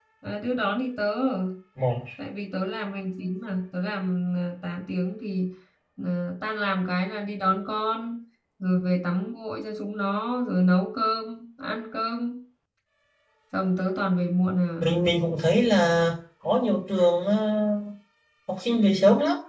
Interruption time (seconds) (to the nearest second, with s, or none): none